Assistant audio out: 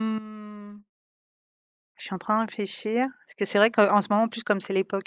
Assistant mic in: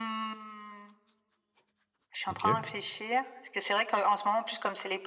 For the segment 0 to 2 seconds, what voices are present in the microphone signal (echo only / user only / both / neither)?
echo only